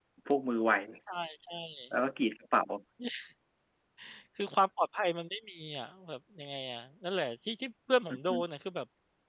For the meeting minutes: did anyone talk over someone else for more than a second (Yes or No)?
No